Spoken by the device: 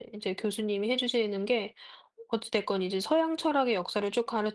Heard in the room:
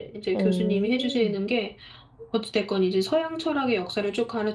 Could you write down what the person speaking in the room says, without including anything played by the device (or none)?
오.